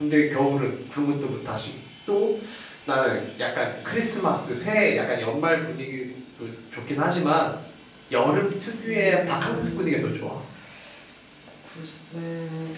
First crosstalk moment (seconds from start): 9 s

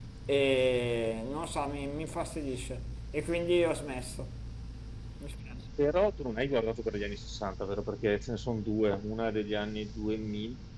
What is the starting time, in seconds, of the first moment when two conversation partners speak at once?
none

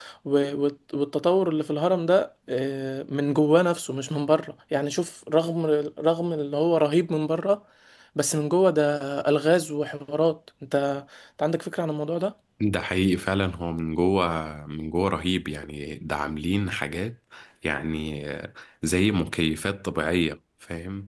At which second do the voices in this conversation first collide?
none

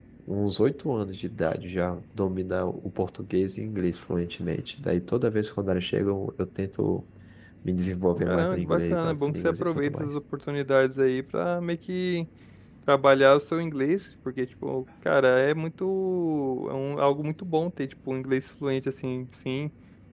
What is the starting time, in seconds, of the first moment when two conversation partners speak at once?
8 s

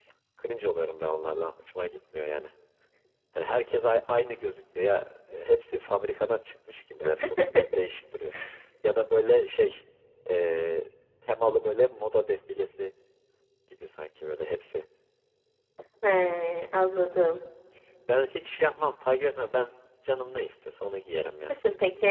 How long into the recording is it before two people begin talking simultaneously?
none

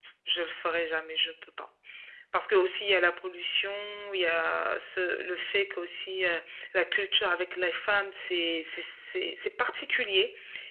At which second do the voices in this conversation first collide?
none

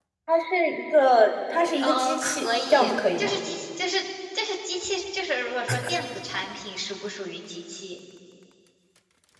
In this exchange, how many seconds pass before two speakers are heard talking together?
2 s

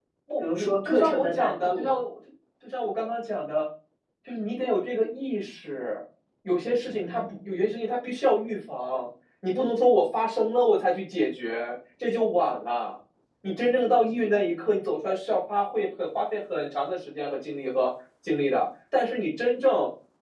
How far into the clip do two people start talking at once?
1 s

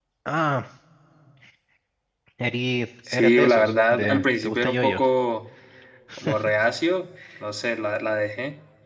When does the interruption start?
3 s

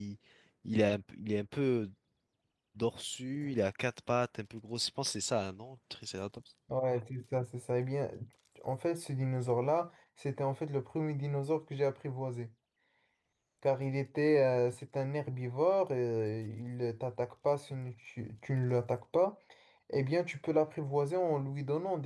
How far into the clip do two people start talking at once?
none

